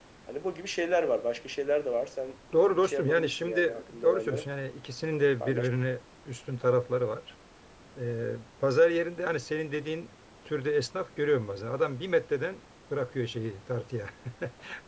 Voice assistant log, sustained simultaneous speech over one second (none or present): present